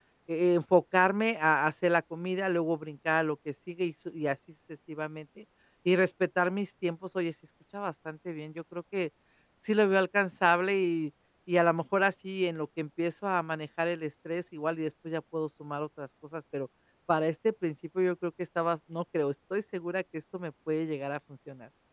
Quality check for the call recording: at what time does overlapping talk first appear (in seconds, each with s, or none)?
none